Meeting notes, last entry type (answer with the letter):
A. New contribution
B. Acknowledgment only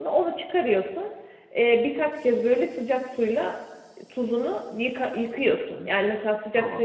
B